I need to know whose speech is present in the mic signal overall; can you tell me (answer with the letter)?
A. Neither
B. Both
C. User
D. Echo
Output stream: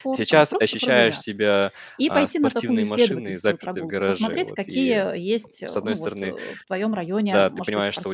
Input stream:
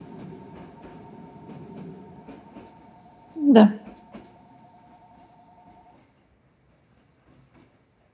C